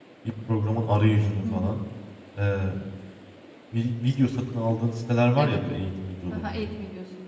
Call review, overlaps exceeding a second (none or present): none